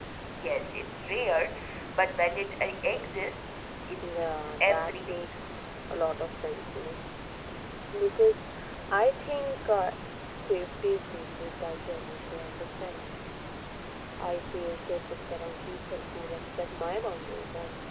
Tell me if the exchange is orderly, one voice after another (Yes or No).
No